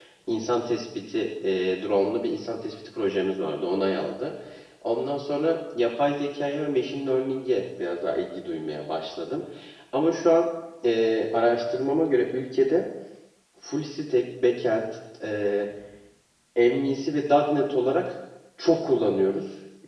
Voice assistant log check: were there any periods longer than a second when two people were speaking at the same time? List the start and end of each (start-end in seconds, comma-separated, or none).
none